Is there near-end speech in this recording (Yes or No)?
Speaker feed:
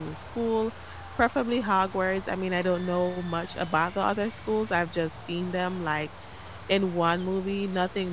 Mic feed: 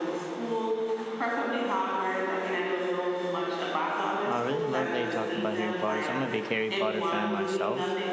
Yes